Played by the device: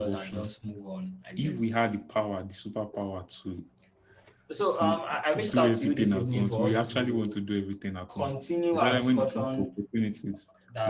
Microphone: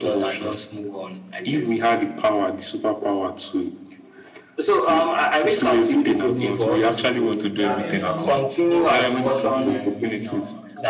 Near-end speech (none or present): present